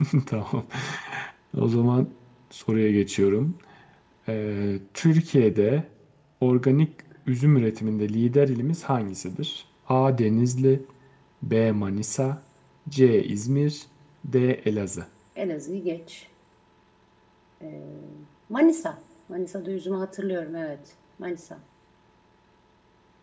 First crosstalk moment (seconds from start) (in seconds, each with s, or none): none